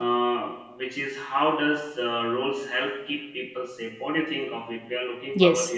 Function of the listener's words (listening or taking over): taking over